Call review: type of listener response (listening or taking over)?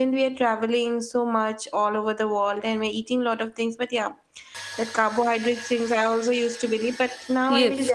taking over